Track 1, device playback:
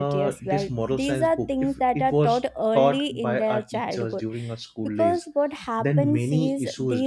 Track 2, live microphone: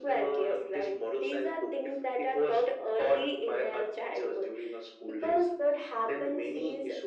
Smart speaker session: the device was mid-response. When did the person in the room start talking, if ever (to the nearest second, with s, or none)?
none